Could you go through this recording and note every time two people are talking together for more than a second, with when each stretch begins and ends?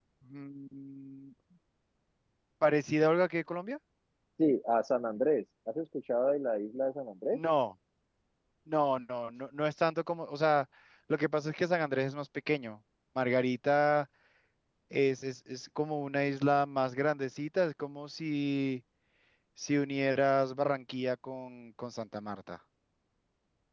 none

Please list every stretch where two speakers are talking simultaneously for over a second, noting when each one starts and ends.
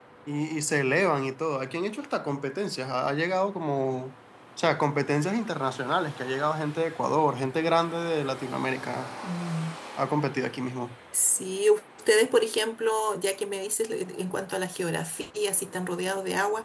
none

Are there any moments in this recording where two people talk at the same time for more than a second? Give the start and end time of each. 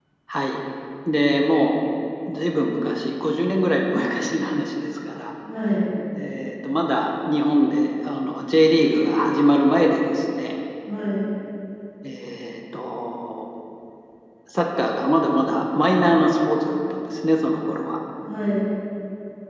none

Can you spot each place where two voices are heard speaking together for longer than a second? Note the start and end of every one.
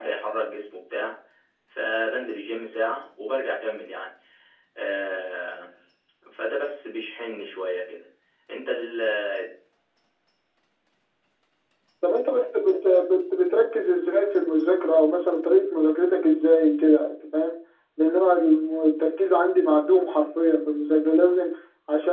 none

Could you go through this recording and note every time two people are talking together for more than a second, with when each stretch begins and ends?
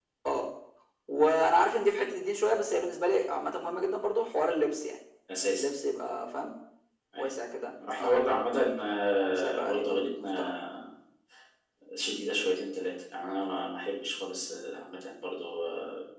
9.4-10.6

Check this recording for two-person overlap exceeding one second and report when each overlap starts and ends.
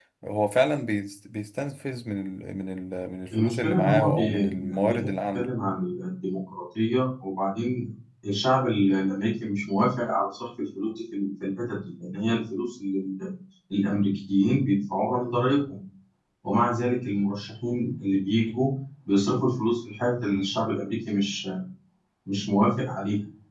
3.3-5.5

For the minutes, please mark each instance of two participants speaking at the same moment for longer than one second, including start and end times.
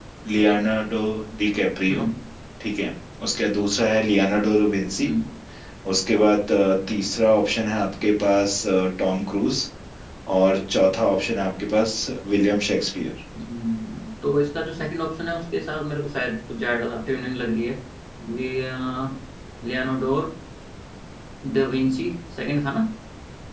none

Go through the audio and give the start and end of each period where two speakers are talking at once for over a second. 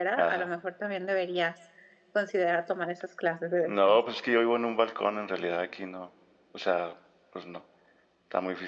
none

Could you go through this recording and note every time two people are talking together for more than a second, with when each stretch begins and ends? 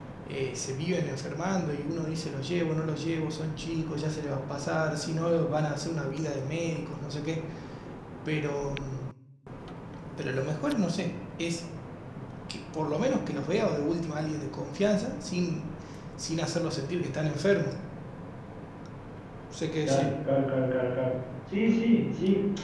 none

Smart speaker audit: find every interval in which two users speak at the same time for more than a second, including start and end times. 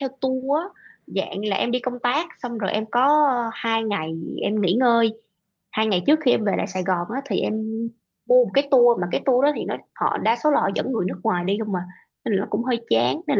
none

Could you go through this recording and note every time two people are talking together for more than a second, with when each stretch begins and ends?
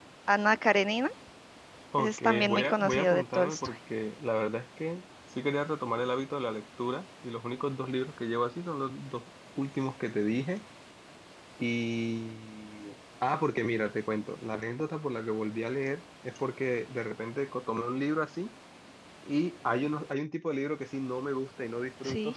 1.9-3.7

